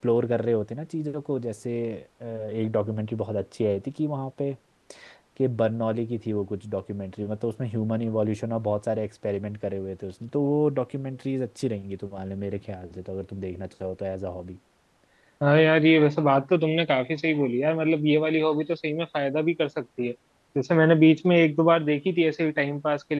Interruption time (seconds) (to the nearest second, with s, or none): none